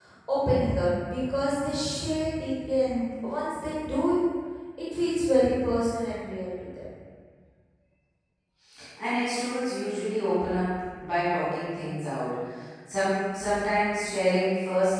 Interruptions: none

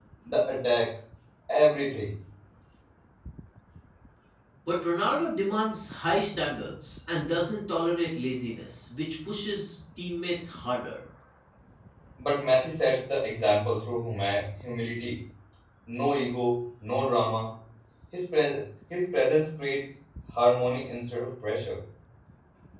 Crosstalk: none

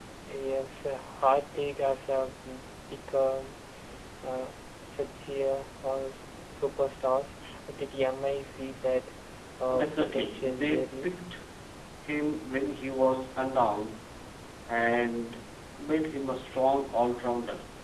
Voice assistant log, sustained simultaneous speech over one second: present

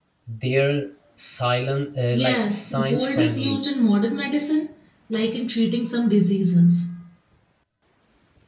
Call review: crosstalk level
present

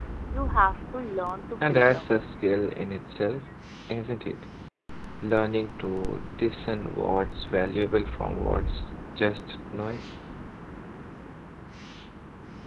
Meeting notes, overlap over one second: none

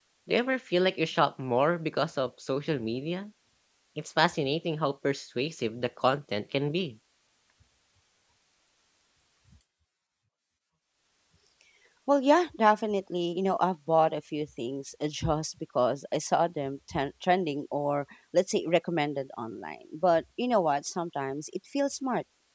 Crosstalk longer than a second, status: none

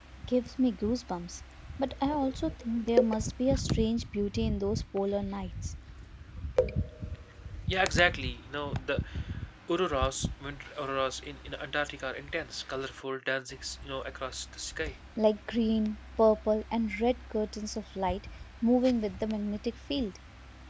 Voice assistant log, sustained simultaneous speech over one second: none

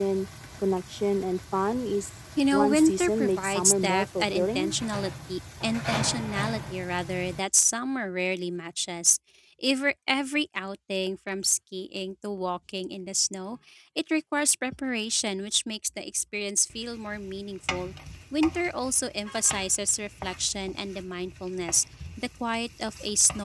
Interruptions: present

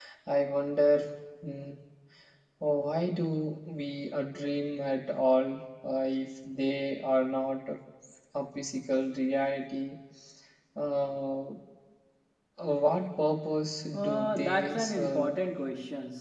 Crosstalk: present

